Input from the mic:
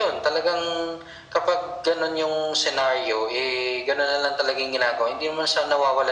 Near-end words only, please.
none

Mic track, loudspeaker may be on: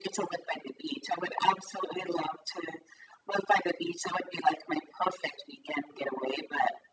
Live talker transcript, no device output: none

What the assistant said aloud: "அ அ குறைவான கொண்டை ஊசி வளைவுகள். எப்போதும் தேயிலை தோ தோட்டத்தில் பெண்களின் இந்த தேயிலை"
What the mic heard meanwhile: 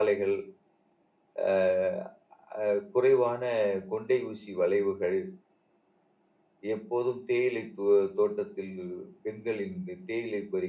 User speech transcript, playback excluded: none

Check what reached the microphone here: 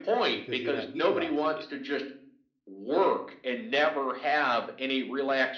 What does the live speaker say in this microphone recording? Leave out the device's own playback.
because you're not utilizing it.

